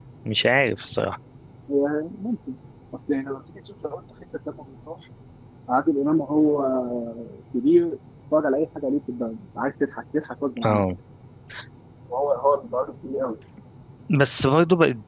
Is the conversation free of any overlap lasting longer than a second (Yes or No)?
Yes